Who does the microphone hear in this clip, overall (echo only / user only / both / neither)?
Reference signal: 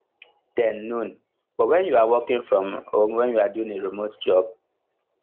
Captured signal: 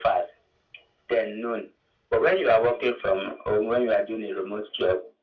echo only